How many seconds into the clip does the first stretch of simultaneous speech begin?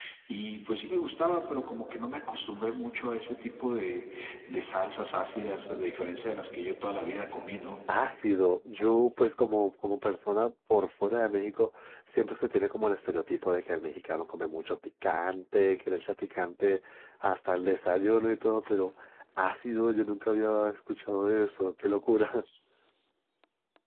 none

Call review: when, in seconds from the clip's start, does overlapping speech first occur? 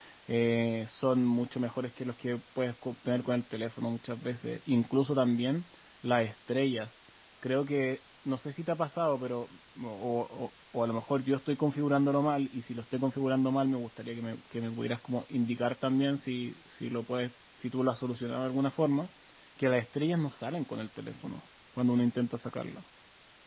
none

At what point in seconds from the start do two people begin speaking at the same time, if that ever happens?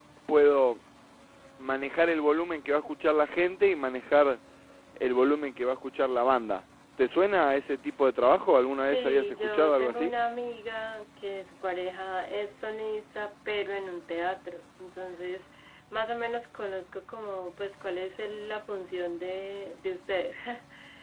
8.8 s

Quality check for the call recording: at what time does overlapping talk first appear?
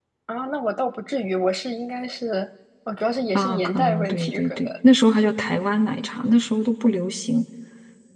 3.4 s

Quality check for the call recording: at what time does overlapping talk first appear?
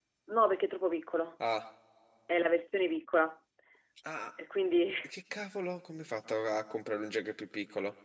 none

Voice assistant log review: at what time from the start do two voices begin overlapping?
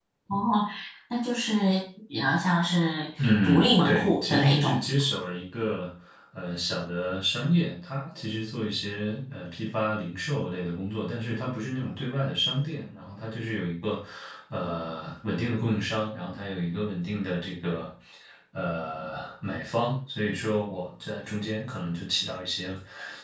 3.2 s

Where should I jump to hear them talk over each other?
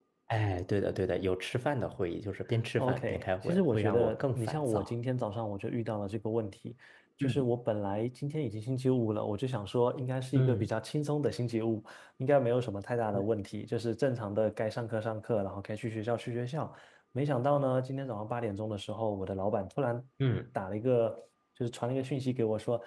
2.8 s

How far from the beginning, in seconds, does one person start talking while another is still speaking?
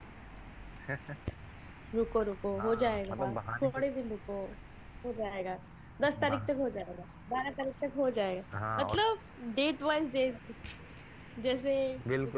2.6 s

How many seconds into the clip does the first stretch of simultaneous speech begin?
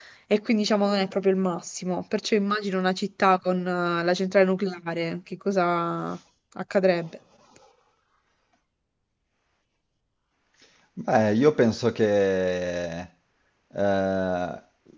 none

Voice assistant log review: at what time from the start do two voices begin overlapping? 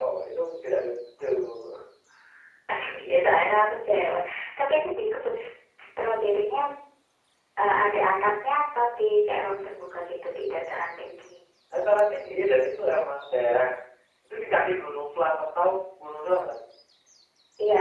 none

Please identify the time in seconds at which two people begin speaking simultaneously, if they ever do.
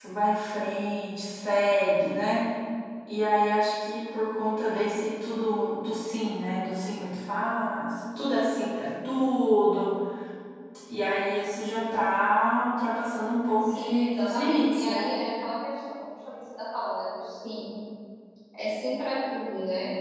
13.7 s

